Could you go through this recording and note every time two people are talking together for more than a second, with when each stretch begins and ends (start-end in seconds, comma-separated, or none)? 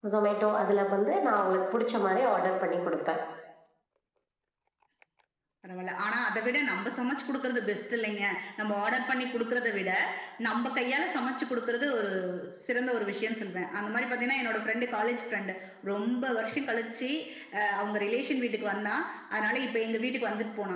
none